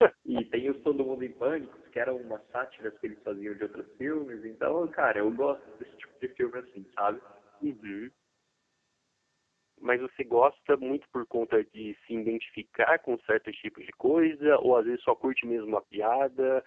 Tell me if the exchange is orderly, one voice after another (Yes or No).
Yes